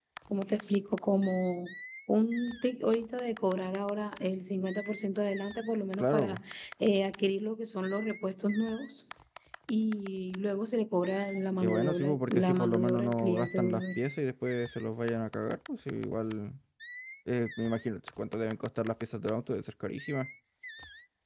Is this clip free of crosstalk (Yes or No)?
No